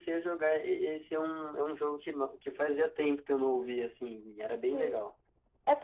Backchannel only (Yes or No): No